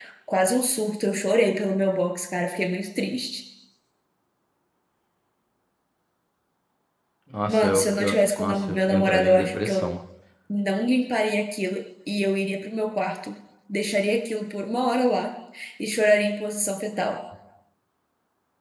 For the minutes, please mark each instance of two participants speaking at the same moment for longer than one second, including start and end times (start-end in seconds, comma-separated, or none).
7.5-9.8